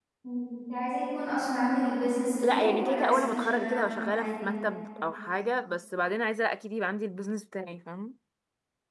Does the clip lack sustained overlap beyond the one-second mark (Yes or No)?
No